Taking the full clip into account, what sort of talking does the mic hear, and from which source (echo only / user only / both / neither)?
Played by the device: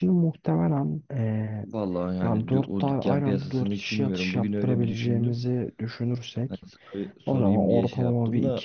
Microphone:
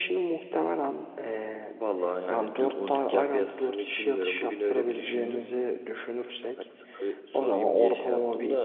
echo only